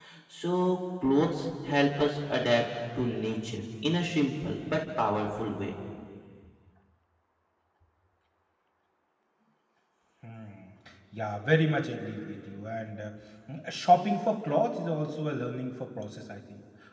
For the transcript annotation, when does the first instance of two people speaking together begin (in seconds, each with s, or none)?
none